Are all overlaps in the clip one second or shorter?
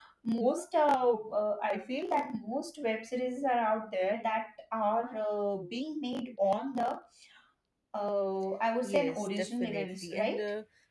No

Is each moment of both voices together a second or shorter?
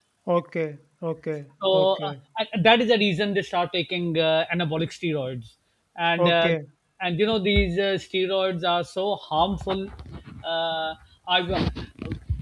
Yes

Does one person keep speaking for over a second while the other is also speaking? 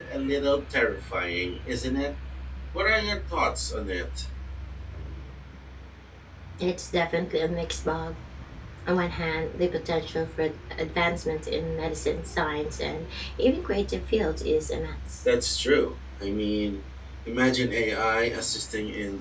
No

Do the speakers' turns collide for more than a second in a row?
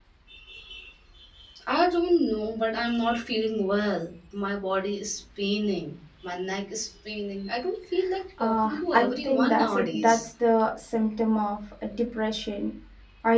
Yes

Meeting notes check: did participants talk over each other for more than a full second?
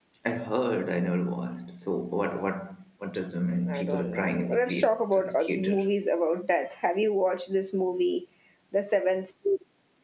Yes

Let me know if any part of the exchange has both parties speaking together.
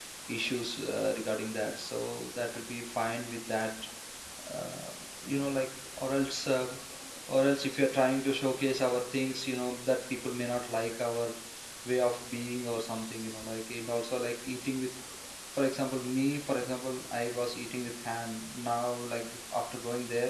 No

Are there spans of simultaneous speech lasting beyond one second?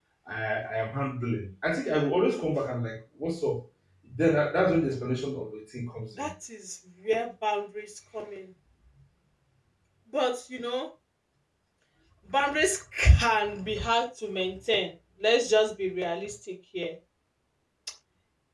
No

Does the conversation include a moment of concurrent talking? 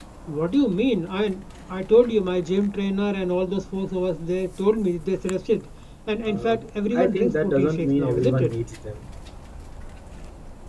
Yes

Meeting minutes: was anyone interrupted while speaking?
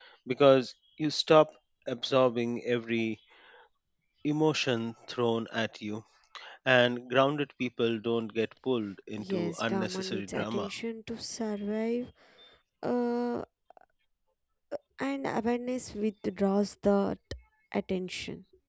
Yes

